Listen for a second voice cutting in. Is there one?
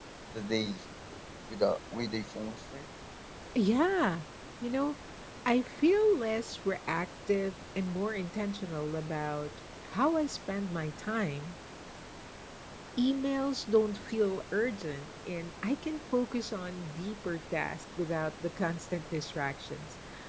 No

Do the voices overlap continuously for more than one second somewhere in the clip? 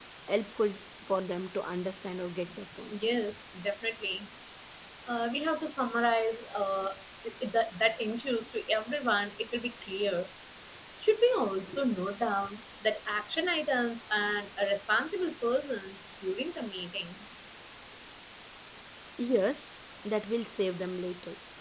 No

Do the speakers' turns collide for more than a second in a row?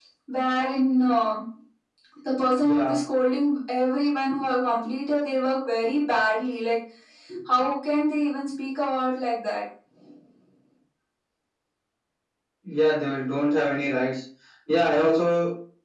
No

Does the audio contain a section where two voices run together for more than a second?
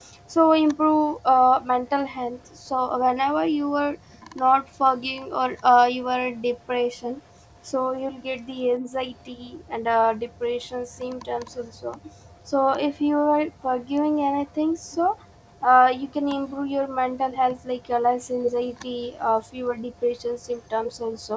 No

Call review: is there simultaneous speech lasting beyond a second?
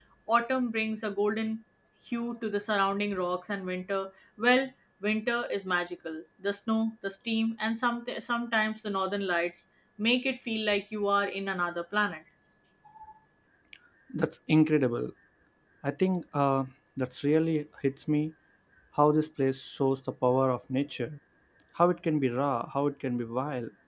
No

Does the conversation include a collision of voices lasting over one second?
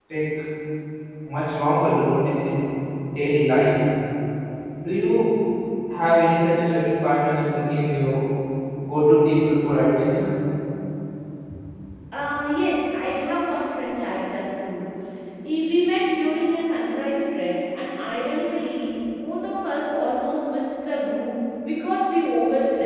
No

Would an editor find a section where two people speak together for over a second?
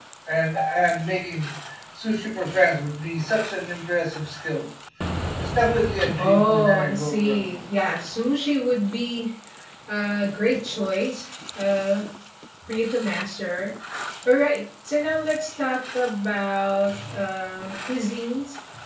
Yes, from 6.2 s

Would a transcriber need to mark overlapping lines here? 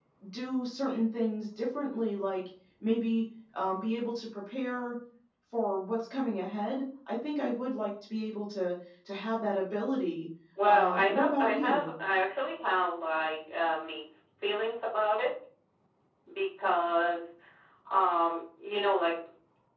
Yes, from 10.6 s

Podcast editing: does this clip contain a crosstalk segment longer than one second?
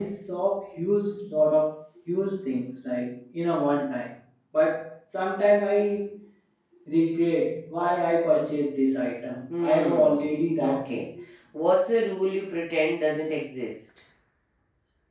Yes, from 9.5 s

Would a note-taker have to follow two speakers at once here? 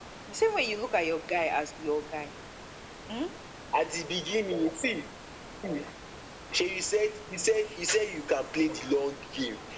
No

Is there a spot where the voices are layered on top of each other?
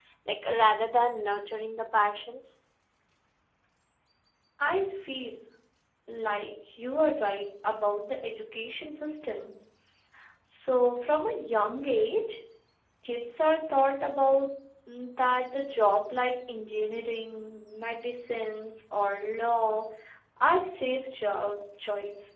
No

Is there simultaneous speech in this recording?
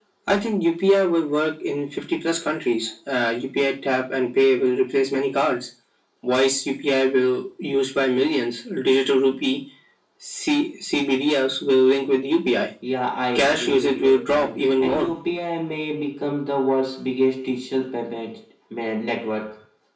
Yes, from 13.3 s

